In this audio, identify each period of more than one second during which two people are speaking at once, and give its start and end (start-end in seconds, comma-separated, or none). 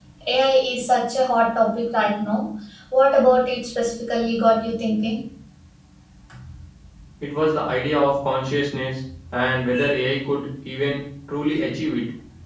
none